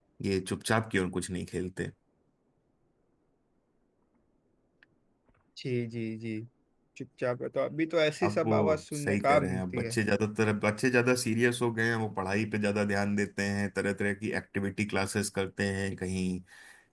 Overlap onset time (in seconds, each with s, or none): 8.2 s